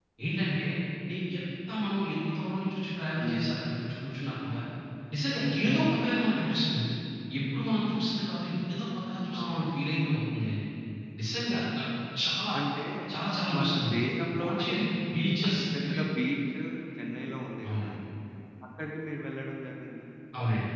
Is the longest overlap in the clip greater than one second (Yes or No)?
No